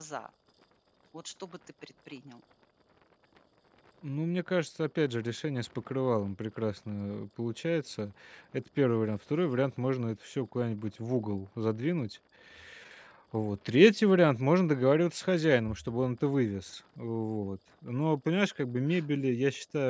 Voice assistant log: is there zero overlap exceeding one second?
Yes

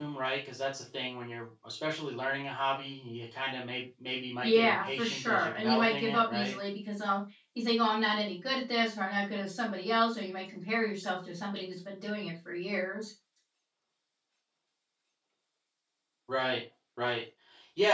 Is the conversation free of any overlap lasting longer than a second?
No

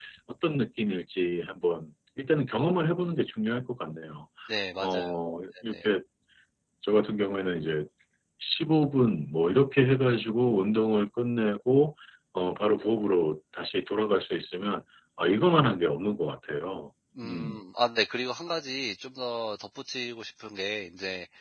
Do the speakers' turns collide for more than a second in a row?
No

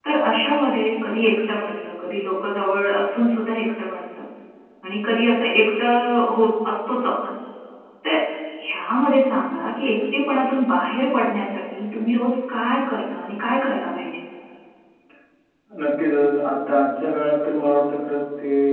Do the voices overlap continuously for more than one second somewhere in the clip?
No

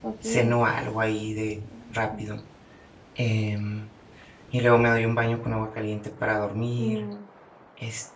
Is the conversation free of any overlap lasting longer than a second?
Yes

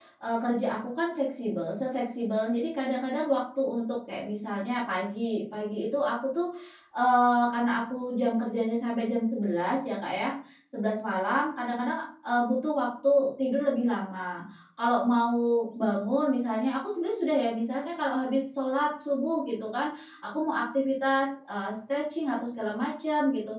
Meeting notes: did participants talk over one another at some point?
No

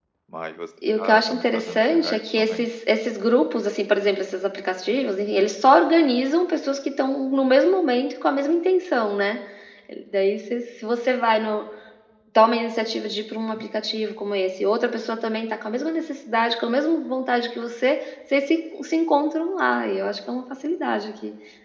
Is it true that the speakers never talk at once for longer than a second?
No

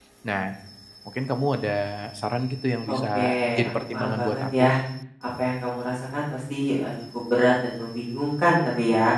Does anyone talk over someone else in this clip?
Yes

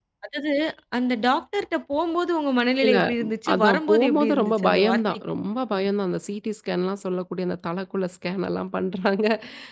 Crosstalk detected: Yes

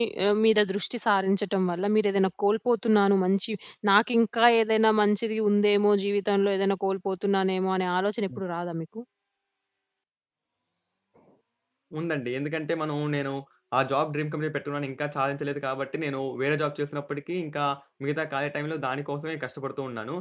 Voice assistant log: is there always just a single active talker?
Yes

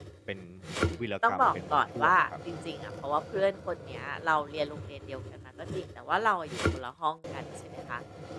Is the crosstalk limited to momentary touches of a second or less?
No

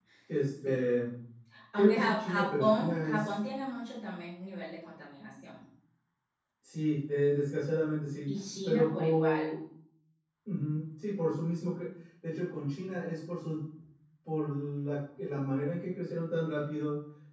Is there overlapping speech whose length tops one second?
Yes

